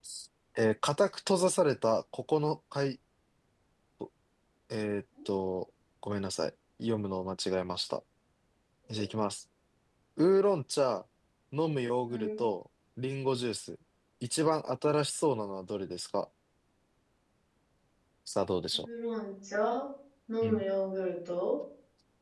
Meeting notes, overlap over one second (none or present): none